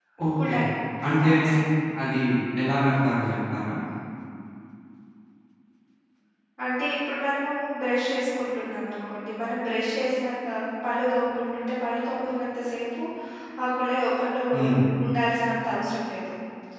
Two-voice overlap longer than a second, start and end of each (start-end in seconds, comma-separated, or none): none